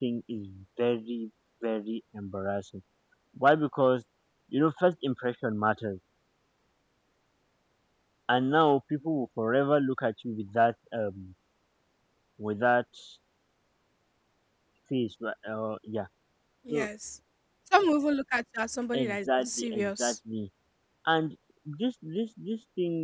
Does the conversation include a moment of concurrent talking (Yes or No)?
Yes